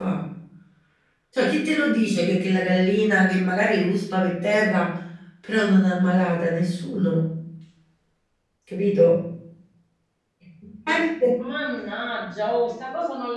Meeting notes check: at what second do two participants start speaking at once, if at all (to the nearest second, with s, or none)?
none